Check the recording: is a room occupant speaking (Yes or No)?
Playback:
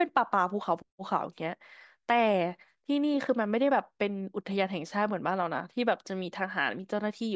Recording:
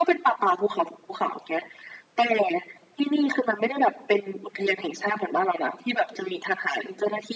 No